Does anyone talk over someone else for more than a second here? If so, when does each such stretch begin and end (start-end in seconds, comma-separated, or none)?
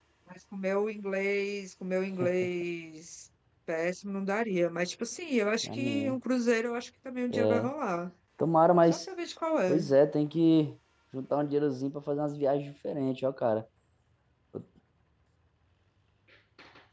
none